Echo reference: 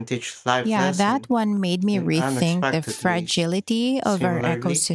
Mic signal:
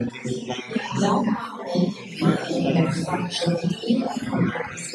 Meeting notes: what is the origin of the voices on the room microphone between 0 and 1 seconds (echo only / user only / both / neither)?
echo only